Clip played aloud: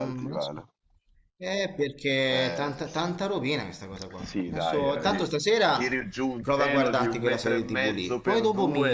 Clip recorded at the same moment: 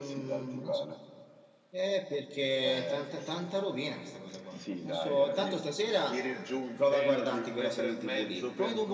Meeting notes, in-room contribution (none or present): none